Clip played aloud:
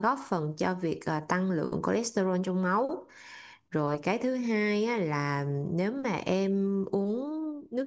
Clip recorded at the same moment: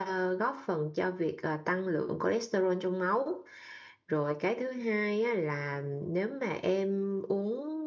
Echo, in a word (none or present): present